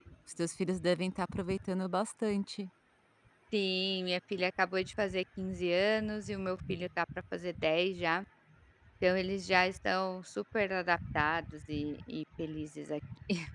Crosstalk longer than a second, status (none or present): none